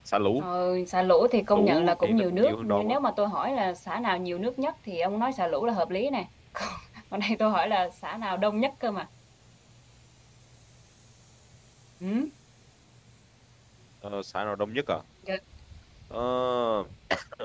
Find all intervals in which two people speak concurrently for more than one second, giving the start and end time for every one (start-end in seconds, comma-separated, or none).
1.6-3.0